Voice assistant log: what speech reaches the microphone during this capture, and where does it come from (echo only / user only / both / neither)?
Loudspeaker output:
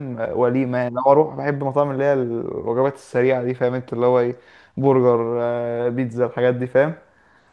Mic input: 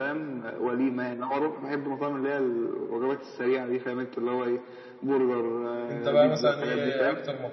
both